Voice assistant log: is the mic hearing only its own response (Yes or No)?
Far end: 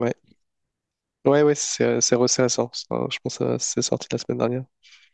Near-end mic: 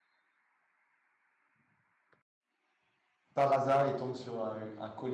No